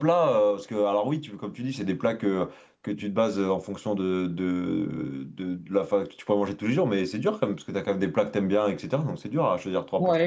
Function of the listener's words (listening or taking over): taking over